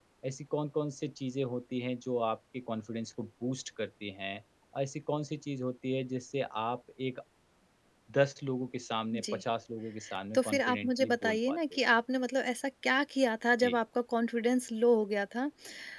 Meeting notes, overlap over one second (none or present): present